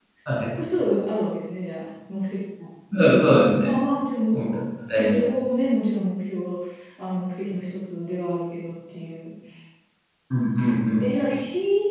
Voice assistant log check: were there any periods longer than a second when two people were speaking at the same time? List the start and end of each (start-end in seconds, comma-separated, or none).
none